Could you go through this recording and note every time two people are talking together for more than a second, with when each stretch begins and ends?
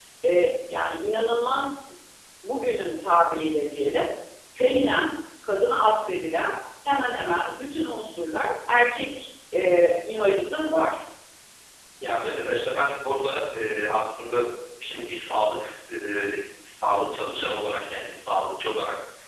none

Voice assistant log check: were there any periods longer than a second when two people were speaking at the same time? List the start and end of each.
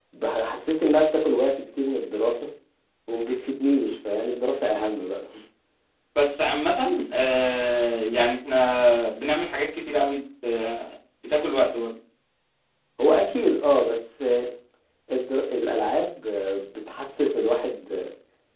none

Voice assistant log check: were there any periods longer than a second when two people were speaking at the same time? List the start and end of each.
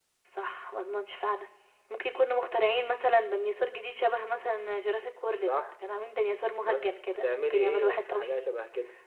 6.6-8.4

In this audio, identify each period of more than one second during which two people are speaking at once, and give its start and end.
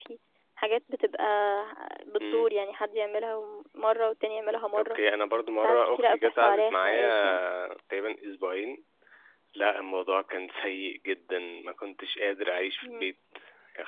5.6-7.4

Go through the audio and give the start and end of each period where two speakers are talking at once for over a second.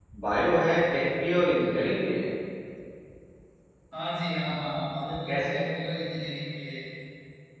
none

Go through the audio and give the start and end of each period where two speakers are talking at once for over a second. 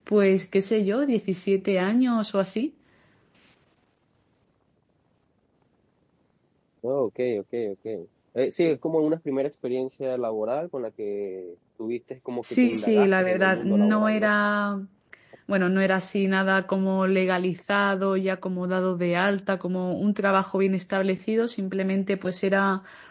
12.5-14.3

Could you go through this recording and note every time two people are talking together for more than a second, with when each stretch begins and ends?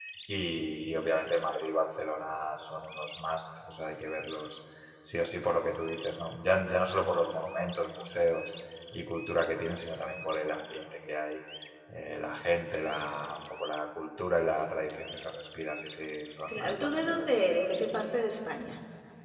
16.5-17.7

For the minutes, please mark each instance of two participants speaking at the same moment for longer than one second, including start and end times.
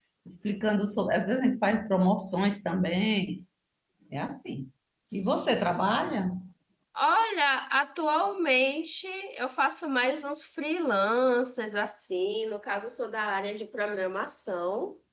none

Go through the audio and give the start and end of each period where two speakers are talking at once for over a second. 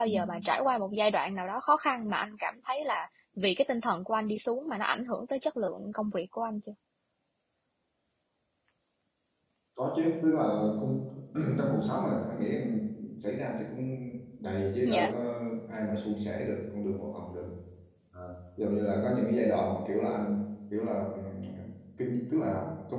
none

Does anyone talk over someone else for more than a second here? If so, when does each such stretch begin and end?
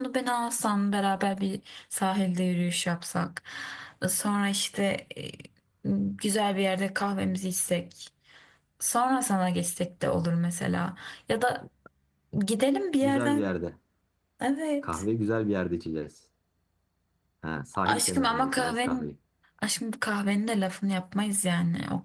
17.9-19.1

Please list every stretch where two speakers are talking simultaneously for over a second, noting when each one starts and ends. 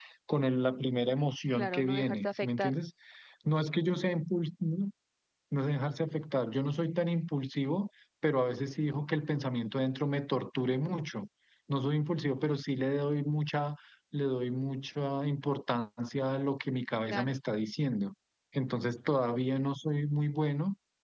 1.5-2.8

